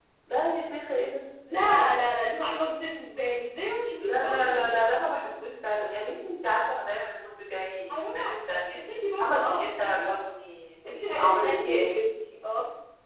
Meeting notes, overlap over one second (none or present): present